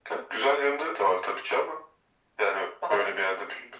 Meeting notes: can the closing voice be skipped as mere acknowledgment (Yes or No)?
Yes